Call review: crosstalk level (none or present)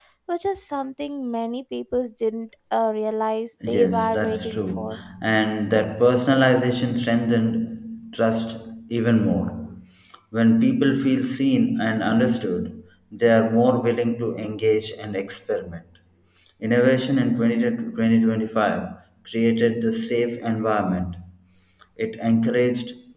present